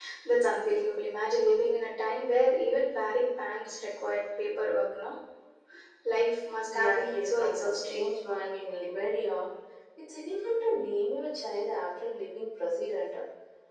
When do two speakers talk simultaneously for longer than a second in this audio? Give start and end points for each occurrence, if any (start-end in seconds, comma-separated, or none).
6.7-8.0